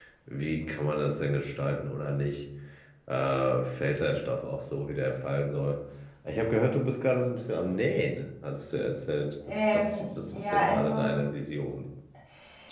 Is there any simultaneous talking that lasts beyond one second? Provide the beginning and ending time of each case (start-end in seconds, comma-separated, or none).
9.5-11.0